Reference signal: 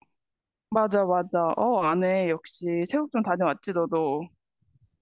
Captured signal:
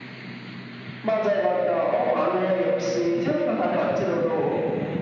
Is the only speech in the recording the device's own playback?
Yes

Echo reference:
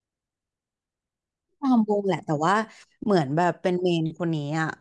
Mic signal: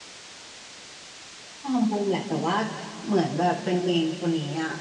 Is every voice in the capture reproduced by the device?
Yes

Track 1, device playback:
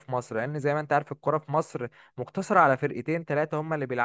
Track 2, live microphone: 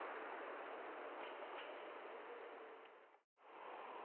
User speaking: No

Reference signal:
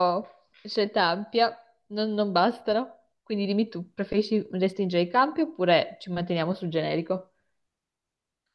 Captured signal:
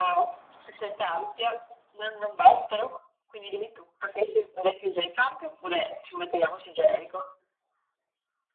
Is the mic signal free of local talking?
Yes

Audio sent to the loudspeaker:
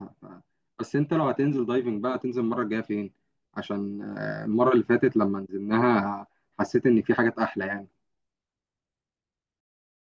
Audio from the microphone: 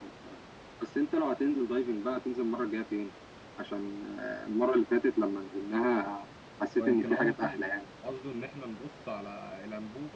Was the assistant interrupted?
Yes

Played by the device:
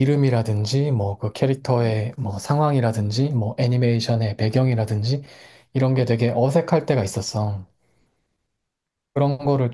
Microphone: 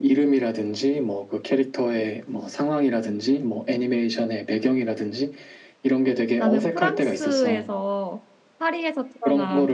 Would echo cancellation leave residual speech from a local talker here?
Yes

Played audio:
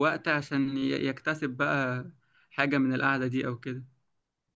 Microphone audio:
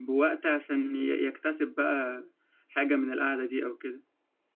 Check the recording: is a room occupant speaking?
No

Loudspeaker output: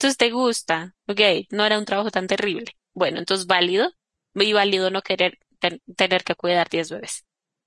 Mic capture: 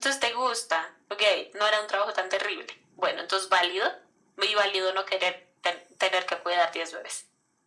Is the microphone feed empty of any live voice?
Yes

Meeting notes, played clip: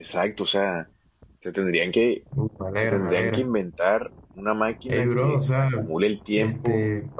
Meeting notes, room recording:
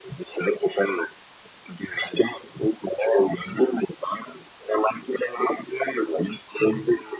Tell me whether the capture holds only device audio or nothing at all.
Yes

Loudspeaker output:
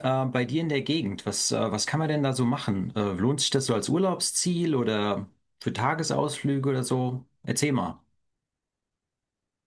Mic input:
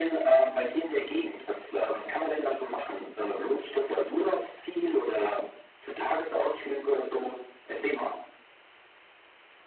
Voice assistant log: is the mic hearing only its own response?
Yes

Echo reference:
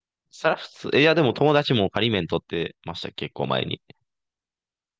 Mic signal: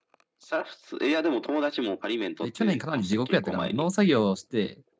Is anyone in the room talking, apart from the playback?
Yes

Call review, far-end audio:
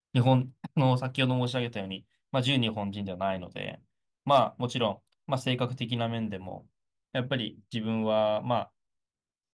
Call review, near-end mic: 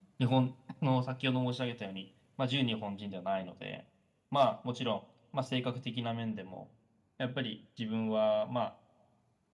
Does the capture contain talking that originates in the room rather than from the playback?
No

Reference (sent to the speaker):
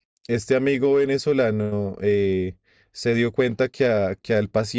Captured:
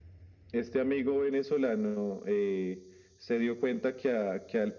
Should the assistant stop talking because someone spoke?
No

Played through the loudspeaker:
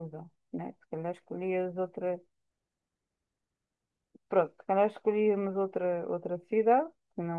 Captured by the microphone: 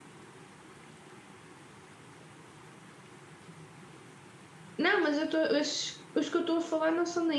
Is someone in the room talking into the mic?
Yes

